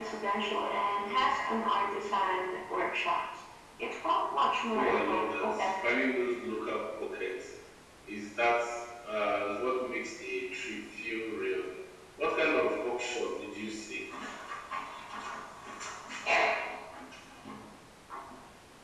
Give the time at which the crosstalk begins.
4.7 s

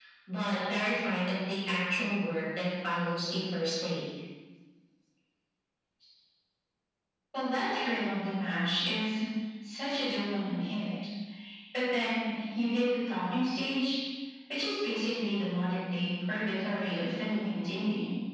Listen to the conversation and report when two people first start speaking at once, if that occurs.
none

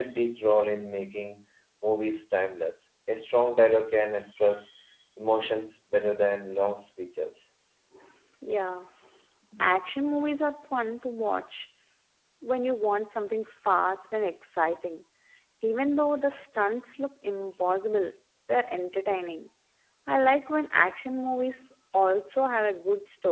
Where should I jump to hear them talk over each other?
none

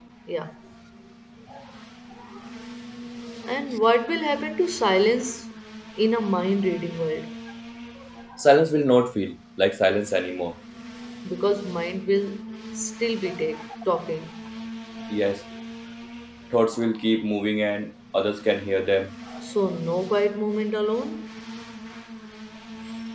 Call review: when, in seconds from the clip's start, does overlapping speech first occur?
none

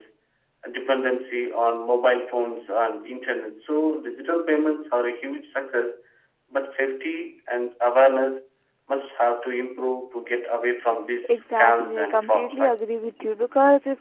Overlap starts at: 11.2 s

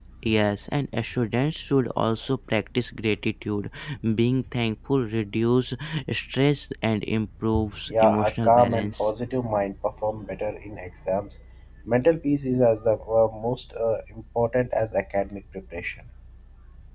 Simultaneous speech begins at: 7.7 s

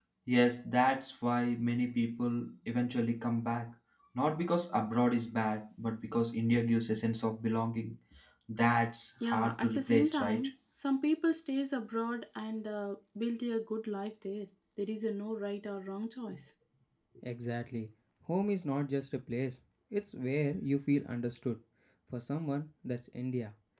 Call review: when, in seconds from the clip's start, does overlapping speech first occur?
9.2 s

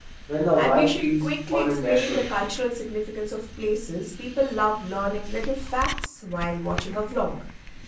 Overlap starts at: 0.6 s

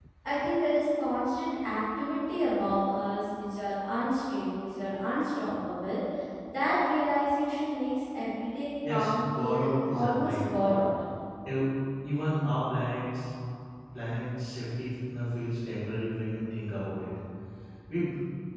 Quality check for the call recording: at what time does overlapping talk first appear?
8.8 s

